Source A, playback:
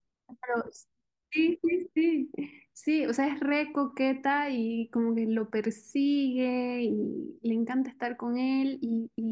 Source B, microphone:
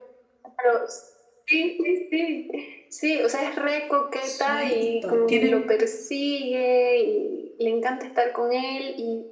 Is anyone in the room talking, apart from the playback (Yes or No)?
Yes